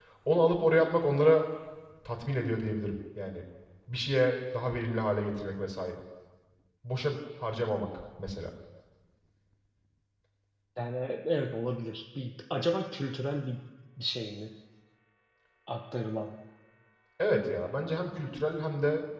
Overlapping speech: No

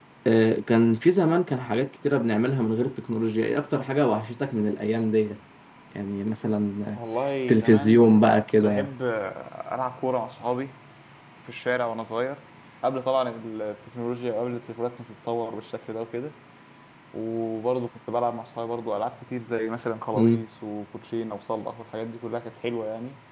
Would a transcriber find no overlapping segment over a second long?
No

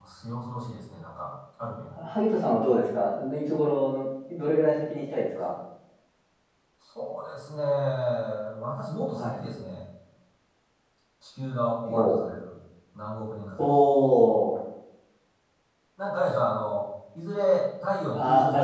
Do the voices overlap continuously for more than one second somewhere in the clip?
No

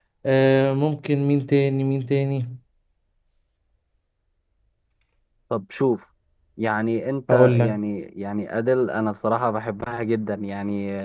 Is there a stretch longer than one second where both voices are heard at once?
No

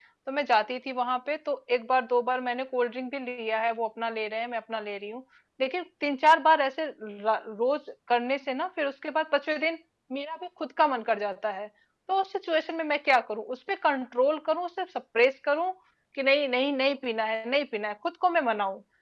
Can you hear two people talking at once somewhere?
No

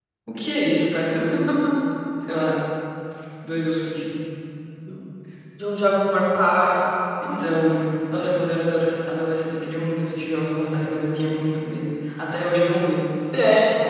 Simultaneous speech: No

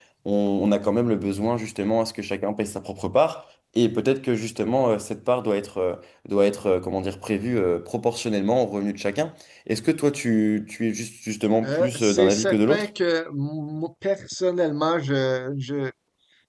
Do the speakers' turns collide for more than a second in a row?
Yes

